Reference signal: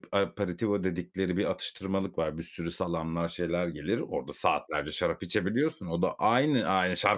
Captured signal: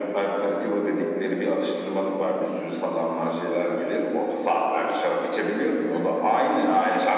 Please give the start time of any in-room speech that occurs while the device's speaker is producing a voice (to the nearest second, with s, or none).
none